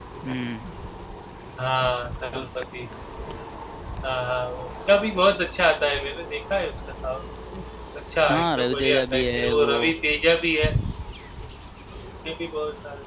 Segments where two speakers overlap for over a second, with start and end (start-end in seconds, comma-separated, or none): 8.3-9.7